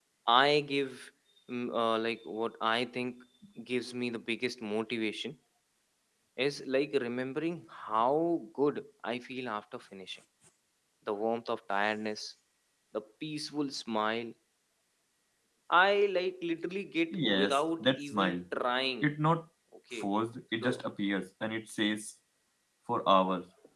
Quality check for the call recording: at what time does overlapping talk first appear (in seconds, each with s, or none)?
17.1 s